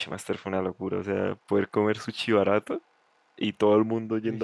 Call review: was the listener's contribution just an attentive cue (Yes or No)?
Yes